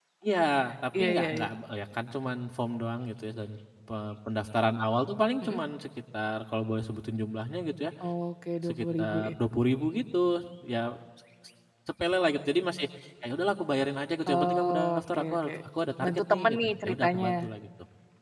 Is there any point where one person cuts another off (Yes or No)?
Yes